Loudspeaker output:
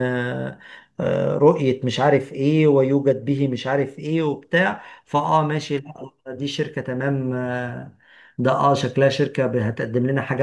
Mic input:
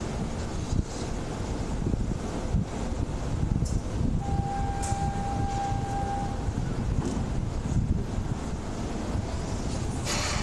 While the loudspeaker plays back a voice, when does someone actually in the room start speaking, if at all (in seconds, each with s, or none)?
none